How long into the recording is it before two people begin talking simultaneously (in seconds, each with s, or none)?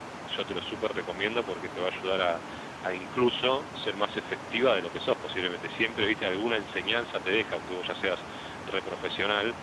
none